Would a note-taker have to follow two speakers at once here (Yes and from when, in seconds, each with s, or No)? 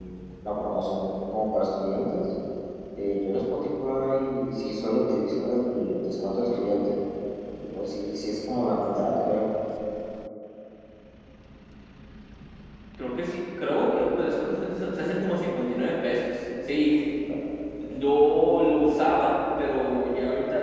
No